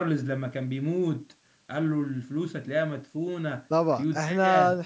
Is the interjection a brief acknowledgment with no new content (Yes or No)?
No